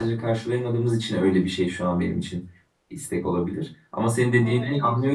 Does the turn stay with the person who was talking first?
Yes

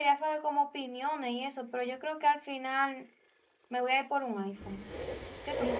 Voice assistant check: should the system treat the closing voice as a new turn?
Yes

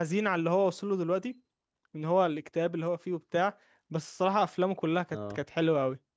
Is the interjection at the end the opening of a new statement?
No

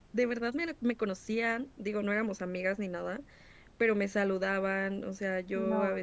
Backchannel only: Yes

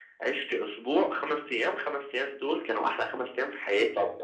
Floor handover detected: Yes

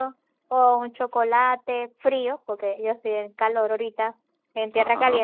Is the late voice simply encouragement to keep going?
Yes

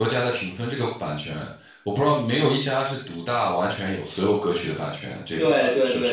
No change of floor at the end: No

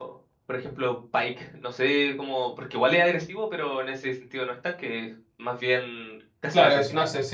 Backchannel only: No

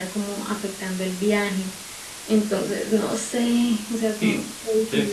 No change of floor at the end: No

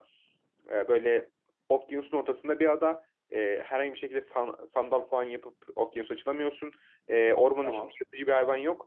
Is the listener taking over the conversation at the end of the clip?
No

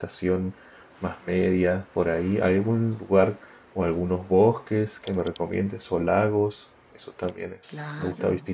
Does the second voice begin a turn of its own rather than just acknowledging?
Yes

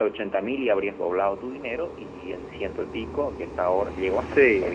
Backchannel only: Yes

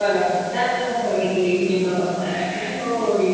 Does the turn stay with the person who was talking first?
Yes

